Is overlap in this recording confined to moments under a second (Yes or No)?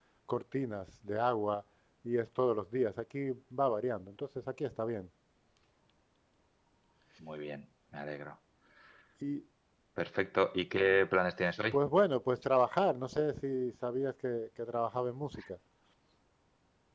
Yes